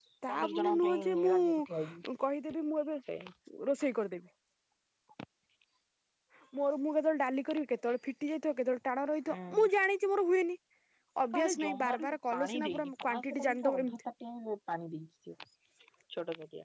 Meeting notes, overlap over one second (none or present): present